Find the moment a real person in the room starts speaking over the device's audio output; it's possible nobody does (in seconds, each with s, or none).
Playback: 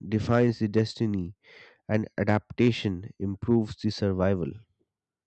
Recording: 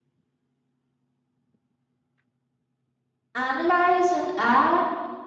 3.3 s